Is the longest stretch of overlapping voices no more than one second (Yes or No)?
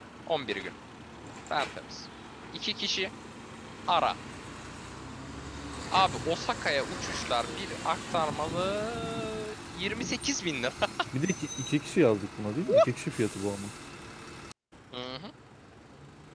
Yes